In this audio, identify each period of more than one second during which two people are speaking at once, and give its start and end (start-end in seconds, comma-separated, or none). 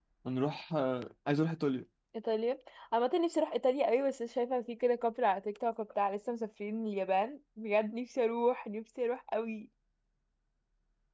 none